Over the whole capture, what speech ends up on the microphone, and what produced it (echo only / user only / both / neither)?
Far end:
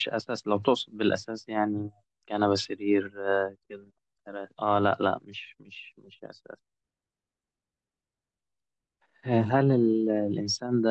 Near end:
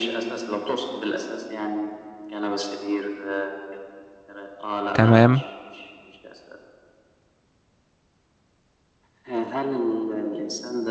both